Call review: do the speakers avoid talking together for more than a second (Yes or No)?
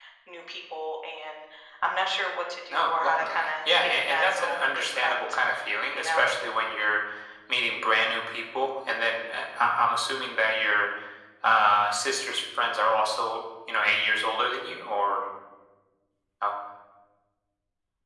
No